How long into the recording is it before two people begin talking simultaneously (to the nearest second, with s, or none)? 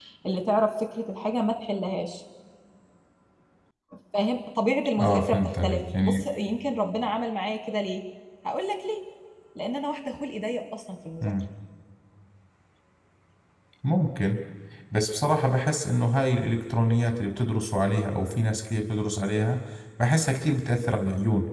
5 s